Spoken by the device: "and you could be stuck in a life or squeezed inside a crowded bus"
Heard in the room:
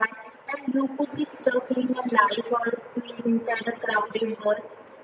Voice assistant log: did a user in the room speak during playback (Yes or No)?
No